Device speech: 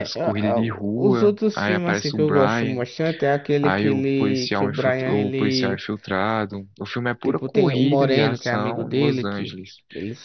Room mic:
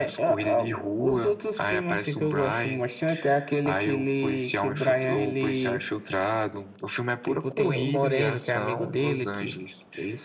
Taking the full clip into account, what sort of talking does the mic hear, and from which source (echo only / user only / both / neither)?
echo only